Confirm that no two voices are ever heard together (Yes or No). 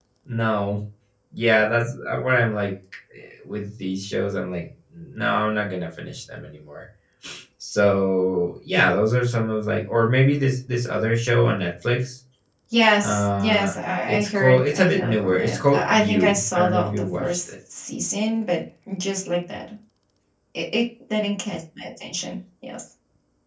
No